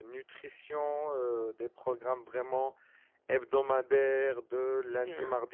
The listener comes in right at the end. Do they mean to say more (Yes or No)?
No